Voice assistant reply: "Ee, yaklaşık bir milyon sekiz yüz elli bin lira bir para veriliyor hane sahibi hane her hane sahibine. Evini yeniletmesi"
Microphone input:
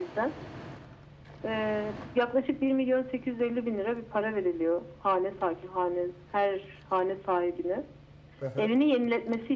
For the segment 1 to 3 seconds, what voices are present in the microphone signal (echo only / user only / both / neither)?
echo only